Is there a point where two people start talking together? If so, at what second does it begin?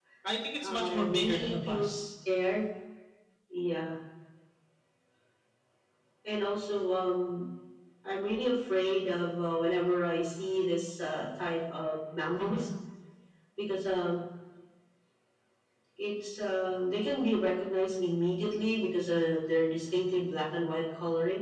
0.6 s

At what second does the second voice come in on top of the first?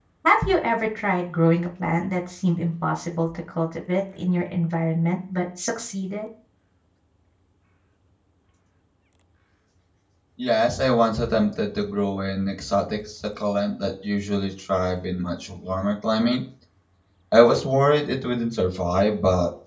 none

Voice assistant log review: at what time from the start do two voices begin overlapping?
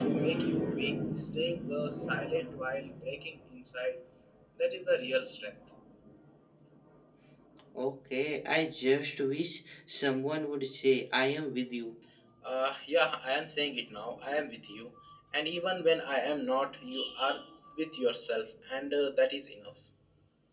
none

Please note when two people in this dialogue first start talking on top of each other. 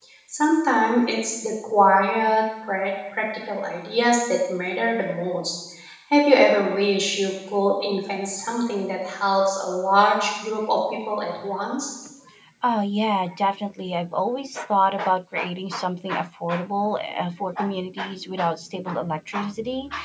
none

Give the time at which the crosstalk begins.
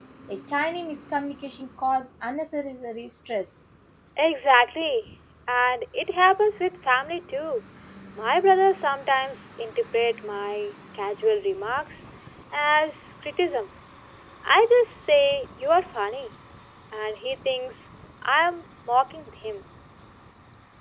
none

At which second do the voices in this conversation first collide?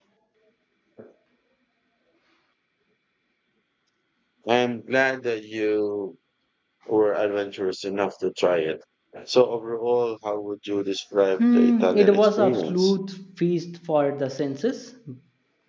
11.4 s

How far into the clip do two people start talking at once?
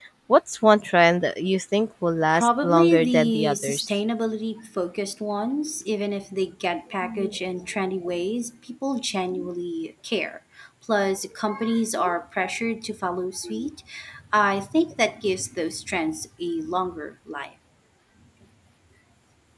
2.3 s

